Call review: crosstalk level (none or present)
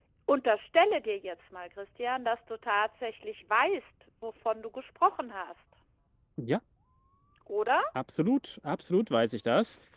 none